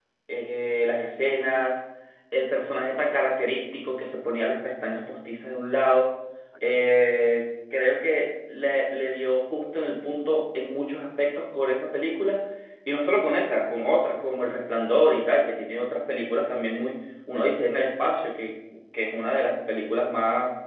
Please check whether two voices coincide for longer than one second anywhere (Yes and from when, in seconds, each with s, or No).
No